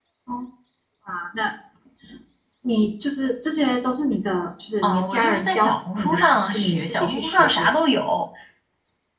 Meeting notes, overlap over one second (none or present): present